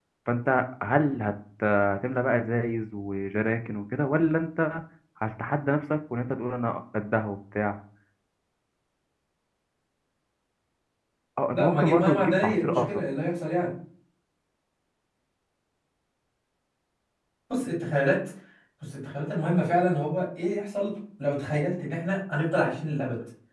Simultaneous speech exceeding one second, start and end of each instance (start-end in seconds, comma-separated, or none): 11.5-12.8